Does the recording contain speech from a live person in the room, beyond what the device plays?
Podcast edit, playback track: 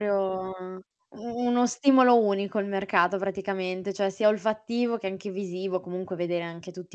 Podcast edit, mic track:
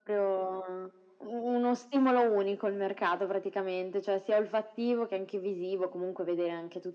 No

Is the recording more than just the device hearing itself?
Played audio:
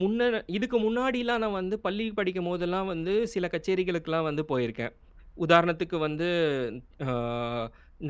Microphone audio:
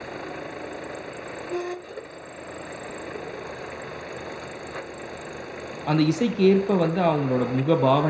Yes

